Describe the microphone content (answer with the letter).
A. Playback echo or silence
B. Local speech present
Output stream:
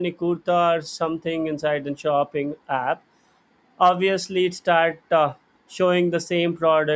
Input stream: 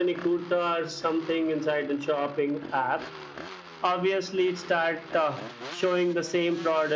A